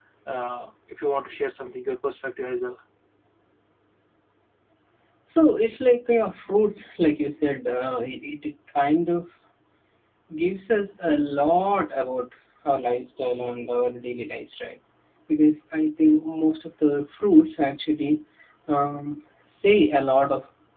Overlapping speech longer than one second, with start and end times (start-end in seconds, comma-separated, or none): none